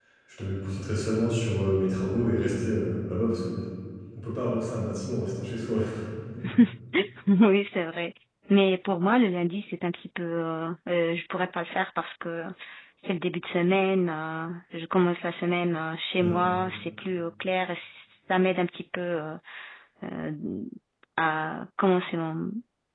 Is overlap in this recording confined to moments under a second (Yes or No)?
Yes